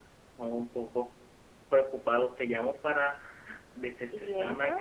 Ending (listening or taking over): listening